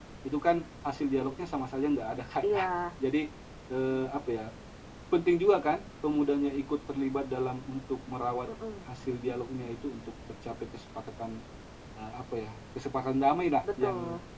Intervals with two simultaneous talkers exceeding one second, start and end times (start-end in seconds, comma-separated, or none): none